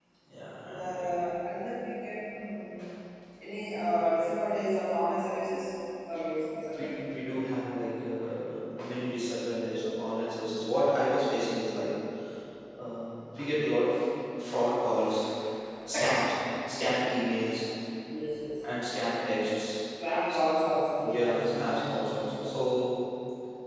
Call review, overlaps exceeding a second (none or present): present